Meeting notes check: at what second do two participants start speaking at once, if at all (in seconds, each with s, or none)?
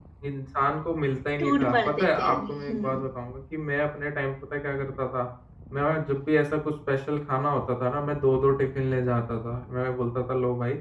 1.4 s